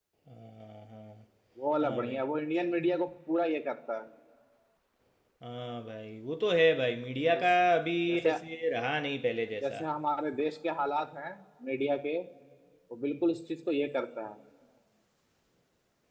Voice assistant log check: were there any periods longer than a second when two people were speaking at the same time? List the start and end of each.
none

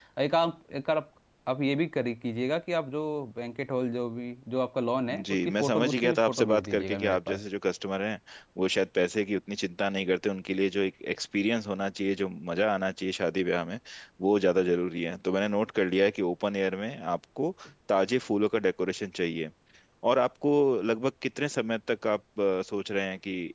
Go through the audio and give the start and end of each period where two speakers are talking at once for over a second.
5.3-7.4

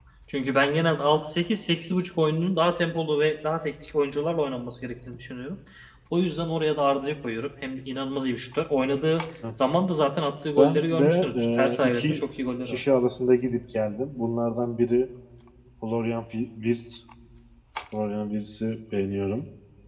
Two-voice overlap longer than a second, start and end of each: 10.6-12.2

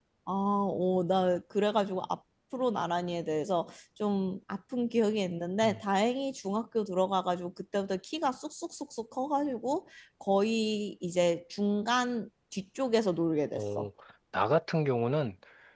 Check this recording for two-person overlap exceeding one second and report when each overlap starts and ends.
none

